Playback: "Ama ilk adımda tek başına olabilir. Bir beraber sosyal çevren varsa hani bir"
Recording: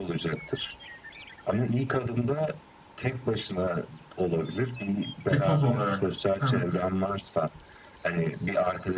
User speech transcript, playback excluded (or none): Bir koz olarak. Evet.